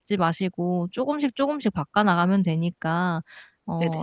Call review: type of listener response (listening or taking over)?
listening